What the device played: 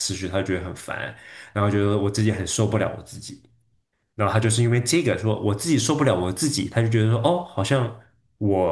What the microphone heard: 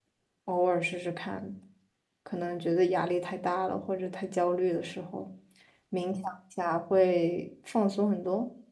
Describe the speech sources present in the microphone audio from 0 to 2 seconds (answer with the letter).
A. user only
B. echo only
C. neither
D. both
A